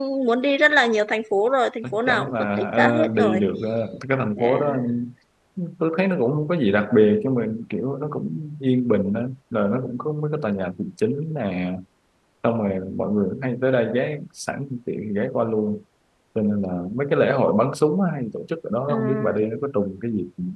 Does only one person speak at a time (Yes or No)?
No